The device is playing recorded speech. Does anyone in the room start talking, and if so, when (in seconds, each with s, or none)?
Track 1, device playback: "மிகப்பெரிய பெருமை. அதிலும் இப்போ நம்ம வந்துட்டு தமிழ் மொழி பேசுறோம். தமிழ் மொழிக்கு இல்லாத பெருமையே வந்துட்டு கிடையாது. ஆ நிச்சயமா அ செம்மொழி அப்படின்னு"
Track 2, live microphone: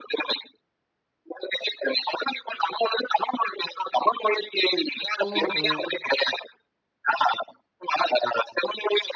5.3 s